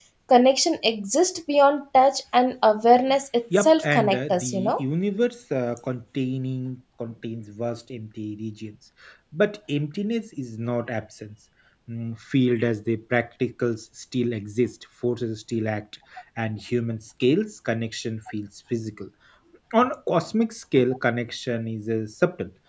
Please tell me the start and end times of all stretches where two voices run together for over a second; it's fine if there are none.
3.6-4.8

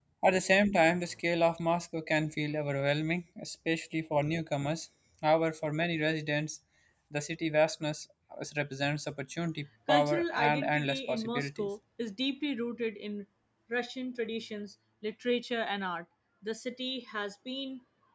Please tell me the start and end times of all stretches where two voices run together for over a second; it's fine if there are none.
9.9-11.7

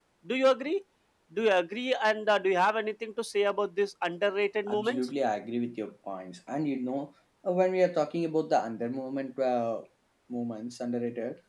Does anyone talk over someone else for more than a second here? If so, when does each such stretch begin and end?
none

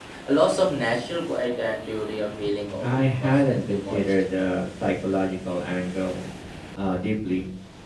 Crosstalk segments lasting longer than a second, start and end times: 2.8-4.0

